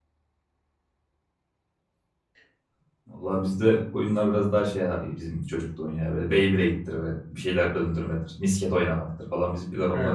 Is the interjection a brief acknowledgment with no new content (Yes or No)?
No